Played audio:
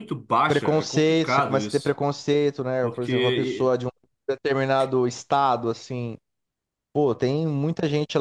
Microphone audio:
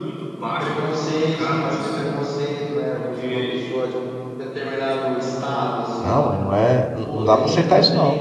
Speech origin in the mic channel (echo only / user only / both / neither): both